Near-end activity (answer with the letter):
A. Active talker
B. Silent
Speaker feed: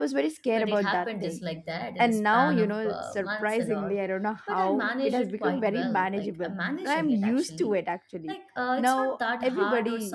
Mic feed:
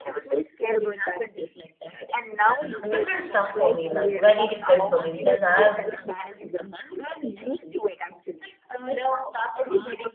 A